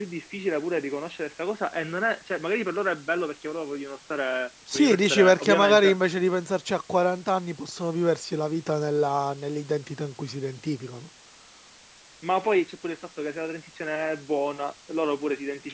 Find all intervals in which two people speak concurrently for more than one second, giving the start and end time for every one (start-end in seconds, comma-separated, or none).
4.7-6.0